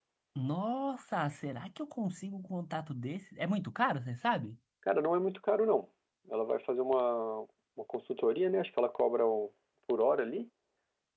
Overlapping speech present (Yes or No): No